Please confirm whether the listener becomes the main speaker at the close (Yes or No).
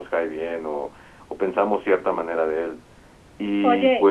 Yes